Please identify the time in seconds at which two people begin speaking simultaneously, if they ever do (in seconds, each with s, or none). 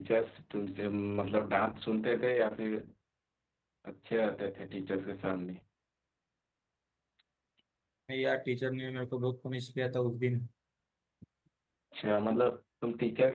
none